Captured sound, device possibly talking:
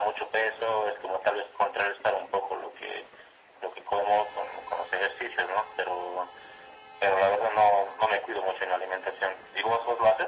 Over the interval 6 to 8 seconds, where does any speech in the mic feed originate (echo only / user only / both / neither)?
echo only